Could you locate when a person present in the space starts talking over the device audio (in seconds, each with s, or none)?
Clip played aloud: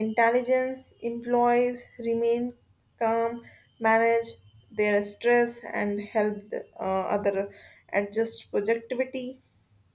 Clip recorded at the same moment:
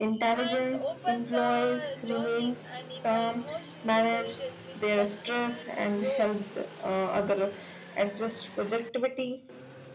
0.3 s